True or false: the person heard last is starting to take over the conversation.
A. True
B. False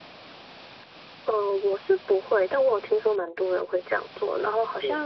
B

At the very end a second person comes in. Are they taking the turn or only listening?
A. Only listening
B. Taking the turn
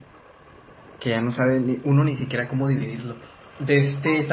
A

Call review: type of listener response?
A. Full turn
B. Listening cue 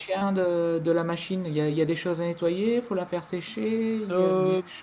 A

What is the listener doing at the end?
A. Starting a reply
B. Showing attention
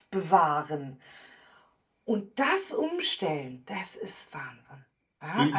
A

